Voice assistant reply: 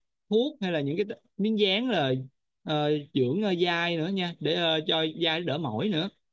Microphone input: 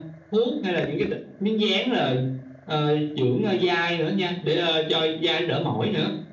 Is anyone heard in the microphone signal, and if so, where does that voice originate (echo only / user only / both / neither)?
echo only